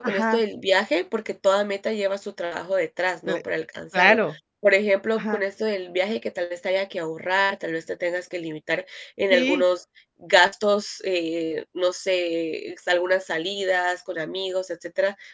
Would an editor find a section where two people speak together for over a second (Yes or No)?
No